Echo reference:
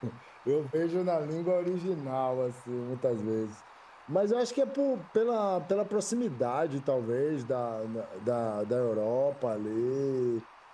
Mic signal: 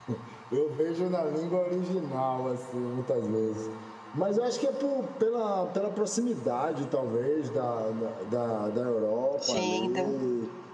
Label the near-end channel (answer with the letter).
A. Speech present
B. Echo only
A